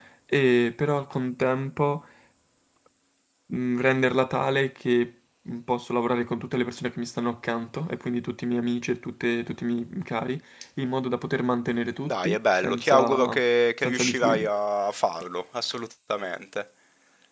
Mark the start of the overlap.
12.1 s

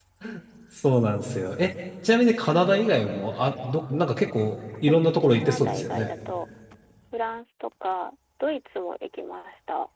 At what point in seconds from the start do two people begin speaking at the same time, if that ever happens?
4.9 s

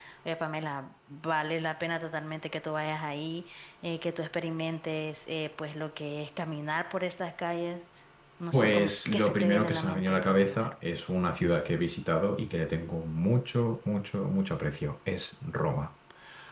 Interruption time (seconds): 8.5 s

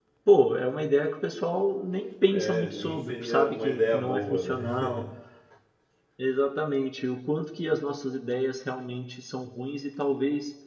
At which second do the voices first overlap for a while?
2.3 s

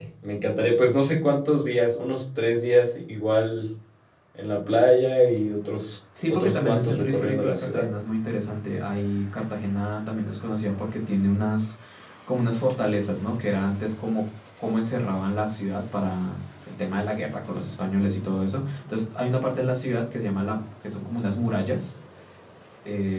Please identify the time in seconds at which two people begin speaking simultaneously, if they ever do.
6.1 s

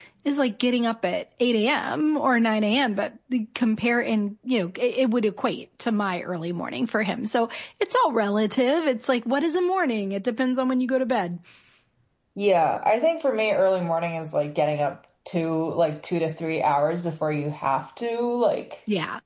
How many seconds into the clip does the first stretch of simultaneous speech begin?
none

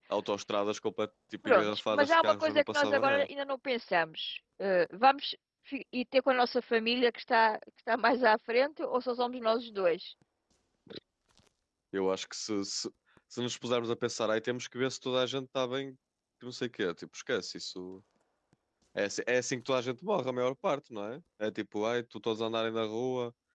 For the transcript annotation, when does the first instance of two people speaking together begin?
1.4 s

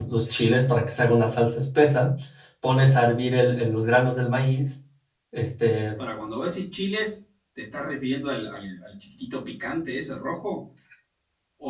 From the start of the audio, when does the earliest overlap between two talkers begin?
none

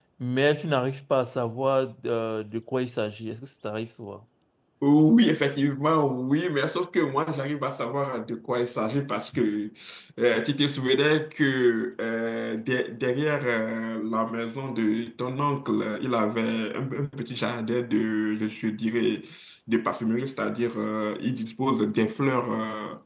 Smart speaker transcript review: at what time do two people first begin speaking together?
none

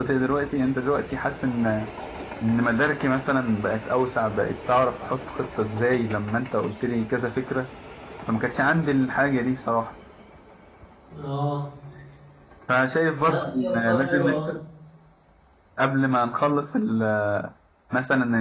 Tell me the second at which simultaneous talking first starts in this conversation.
13.2 s

